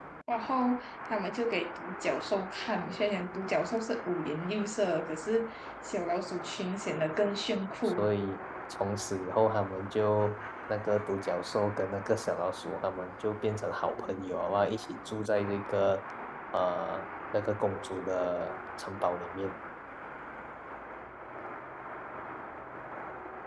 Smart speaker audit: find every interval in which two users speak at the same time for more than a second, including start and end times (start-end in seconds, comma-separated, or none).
none